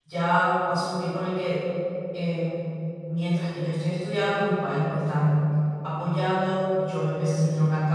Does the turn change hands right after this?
No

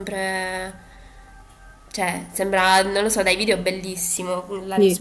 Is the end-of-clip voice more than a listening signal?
Yes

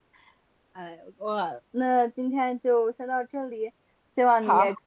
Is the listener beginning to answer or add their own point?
No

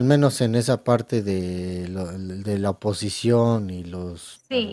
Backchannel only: No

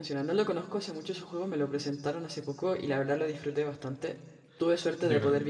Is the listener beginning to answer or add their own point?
No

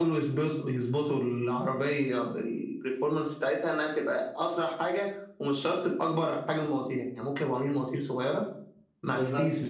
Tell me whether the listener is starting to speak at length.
No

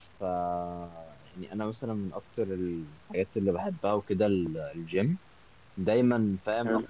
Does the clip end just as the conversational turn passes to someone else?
No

